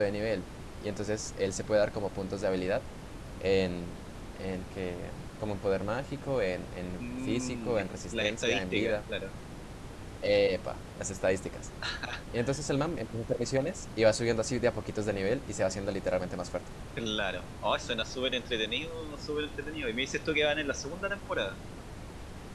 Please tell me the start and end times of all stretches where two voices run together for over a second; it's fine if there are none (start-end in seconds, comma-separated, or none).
7.0-9.0